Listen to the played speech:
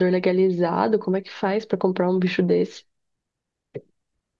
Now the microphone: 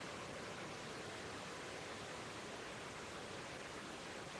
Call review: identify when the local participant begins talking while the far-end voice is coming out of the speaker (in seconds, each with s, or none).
none